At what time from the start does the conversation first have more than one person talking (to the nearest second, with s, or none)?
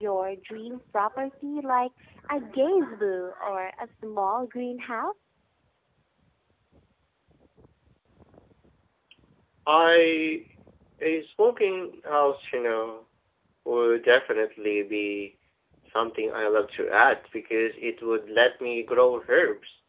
none